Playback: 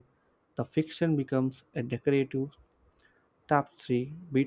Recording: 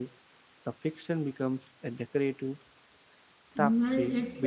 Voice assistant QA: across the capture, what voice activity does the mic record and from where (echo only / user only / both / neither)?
both